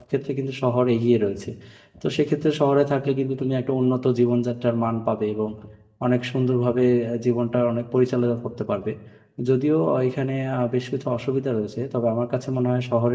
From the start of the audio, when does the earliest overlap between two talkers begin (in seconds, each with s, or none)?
none